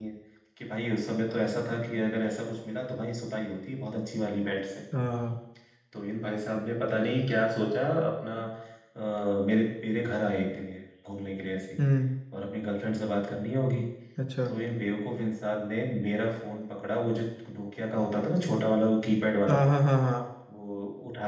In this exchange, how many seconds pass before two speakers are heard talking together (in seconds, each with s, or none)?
none